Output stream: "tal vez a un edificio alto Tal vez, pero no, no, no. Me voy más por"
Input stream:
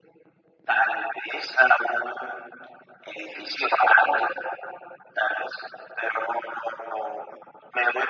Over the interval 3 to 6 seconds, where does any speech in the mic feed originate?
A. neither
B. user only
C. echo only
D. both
C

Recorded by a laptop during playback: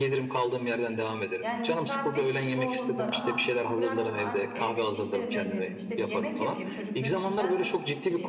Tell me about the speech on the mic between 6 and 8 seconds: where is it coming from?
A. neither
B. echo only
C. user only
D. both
D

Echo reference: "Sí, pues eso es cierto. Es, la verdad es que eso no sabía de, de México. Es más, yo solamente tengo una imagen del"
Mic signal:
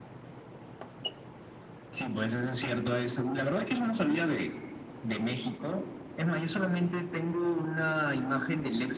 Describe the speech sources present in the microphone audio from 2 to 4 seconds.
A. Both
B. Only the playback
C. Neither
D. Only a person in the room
B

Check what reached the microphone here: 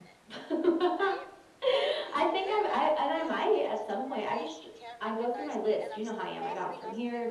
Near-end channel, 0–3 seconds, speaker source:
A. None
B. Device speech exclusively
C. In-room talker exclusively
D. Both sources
D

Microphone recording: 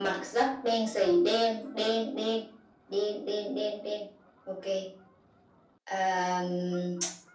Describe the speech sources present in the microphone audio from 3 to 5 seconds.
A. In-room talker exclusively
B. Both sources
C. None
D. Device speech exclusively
D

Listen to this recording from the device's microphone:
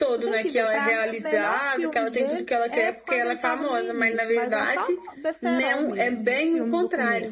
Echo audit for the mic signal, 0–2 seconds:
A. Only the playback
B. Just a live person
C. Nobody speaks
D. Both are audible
D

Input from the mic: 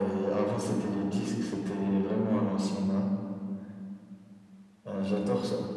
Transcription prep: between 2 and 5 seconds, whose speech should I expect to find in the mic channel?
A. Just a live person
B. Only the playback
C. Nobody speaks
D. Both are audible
B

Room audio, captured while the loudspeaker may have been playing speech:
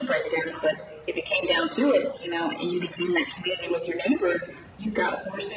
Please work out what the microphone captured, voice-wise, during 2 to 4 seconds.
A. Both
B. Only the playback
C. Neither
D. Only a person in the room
B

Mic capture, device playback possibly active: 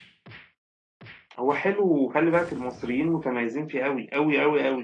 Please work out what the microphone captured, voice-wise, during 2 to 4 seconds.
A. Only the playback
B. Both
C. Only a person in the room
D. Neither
C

